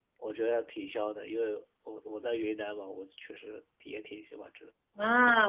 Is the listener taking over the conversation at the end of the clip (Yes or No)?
Yes